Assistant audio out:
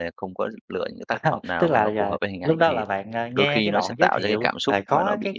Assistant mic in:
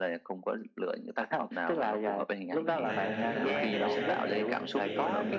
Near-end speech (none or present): present